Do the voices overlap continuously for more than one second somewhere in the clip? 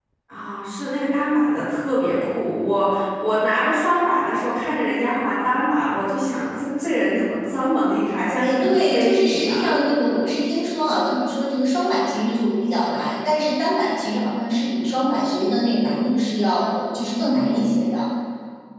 Yes, from 8.4 s

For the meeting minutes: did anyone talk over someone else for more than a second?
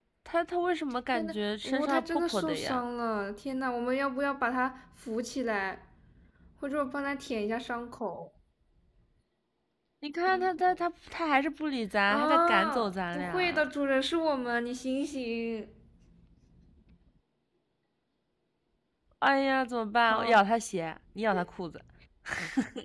Yes, from 1.1 s

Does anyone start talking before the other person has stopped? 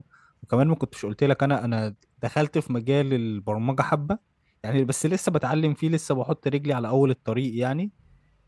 No

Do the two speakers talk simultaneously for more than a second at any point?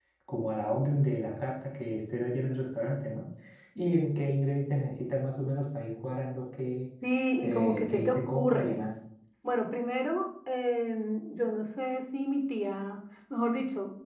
Yes, from 7.4 s

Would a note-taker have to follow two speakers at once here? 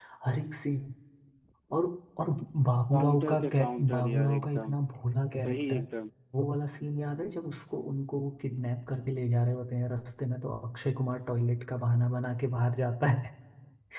Yes, from 2.9 s

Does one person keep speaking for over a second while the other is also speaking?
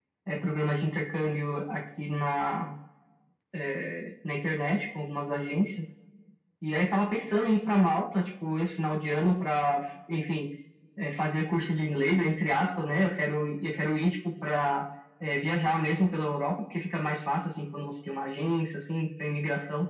No

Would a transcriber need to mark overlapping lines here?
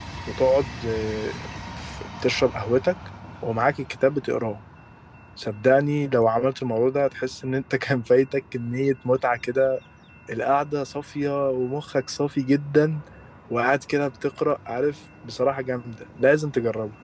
No

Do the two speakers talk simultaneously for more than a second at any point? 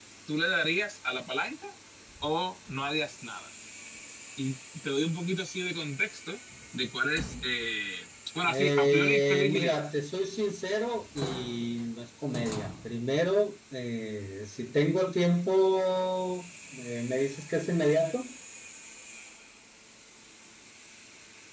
Yes, from 8.5 s

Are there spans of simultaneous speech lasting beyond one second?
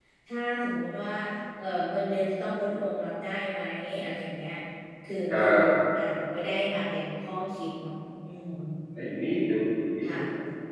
No

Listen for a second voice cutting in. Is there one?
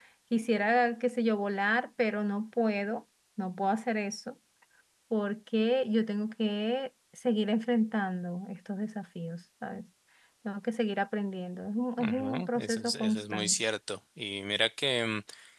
Yes, from 12.0 s

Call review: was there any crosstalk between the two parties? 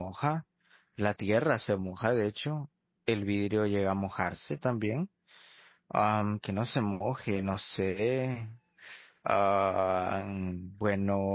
No

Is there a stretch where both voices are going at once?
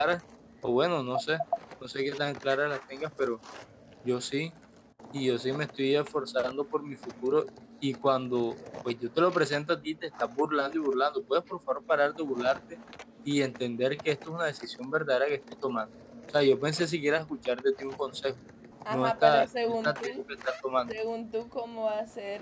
Yes, from 18.9 s

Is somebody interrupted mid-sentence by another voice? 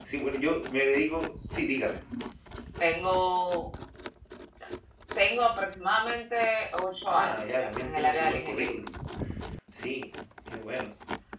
Yes, from 7.1 s

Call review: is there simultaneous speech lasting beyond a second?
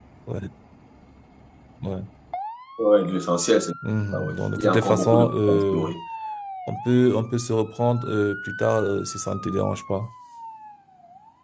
Yes, from 4.1 s

